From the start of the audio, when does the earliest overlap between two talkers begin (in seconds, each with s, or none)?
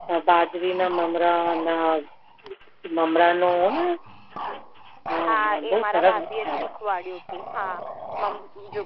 5.2 s